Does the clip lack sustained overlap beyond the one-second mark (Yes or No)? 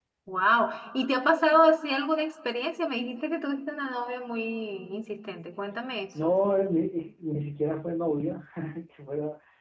Yes